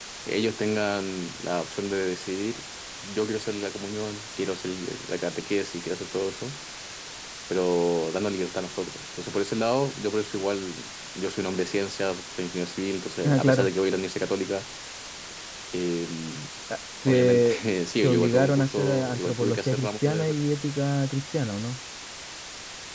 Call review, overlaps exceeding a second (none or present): present